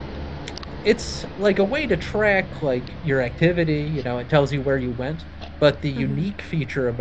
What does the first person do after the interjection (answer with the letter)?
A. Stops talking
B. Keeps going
B